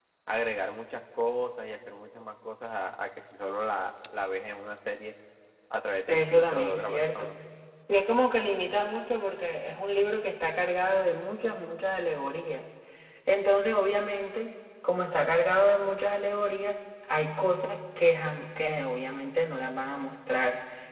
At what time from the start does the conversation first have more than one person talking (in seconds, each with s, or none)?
6.1 s